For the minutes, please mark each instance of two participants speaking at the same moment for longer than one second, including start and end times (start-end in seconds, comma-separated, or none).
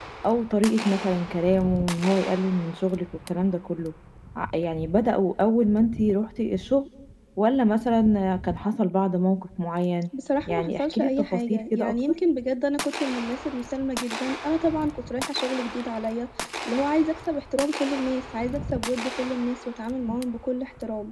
10.5-12.1